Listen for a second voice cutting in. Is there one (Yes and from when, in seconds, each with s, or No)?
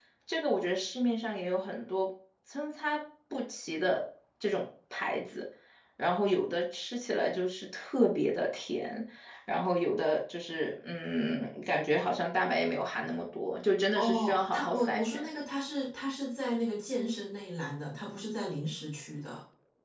Yes, from 13.9 s